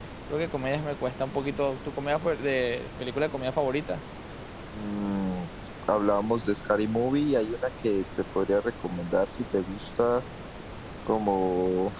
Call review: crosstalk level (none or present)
none